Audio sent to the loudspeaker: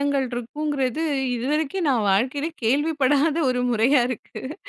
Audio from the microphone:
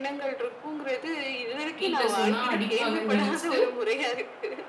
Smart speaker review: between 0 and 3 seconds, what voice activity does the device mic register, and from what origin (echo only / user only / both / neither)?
both